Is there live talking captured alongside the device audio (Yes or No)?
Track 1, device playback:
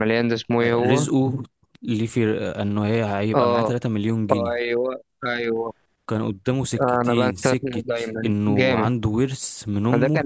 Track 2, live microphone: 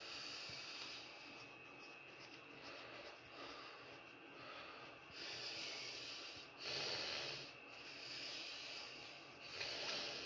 No